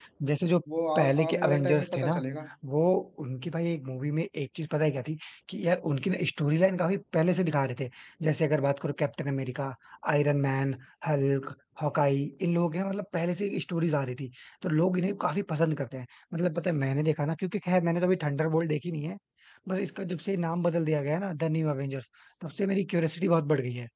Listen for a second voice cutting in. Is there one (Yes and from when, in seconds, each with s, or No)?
Yes, from 1.0 s